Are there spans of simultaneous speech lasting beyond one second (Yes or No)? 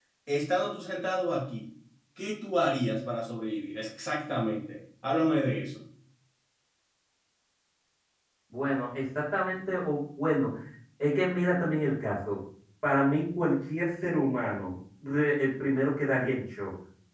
No